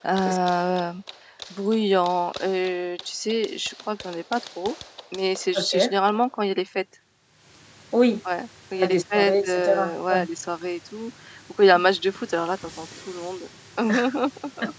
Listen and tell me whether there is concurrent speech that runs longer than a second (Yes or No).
Yes